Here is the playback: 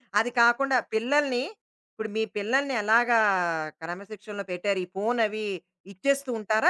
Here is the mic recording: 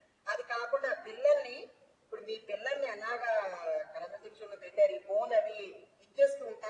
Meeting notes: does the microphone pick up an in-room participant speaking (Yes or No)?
No